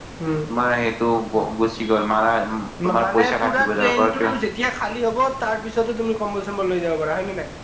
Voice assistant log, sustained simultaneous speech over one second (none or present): present